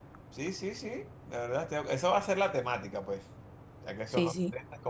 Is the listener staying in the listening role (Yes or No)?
Yes